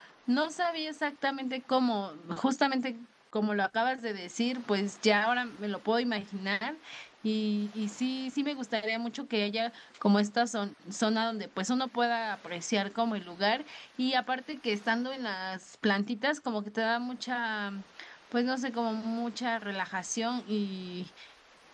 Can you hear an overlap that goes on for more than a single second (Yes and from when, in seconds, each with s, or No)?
No